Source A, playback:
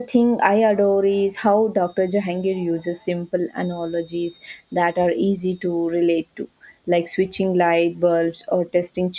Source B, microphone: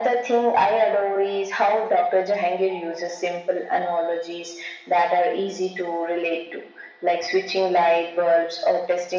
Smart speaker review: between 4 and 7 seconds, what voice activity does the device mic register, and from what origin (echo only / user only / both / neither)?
echo only